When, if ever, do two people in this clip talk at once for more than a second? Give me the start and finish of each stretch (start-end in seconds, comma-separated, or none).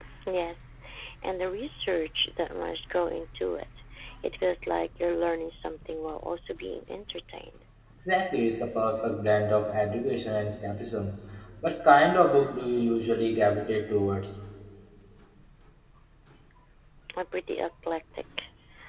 none